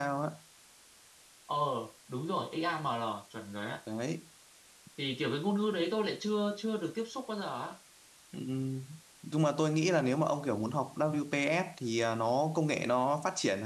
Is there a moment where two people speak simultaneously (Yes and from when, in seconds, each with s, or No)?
No